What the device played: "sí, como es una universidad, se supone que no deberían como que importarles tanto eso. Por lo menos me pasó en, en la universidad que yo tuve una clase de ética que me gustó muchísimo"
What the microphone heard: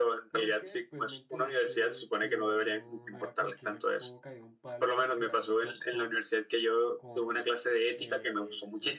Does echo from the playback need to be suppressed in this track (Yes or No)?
Yes